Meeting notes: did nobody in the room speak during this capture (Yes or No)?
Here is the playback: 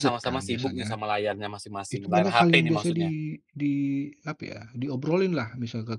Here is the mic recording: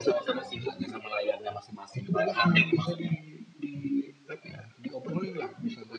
Yes